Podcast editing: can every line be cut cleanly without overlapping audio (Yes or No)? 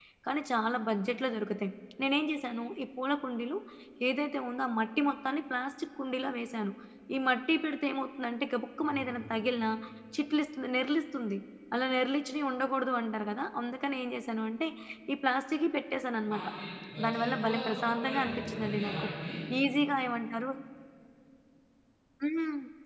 No